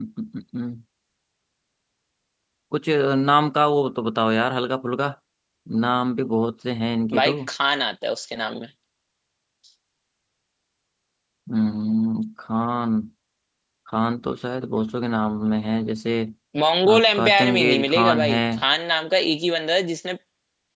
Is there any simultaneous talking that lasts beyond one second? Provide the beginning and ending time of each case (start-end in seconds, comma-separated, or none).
16.9-18.4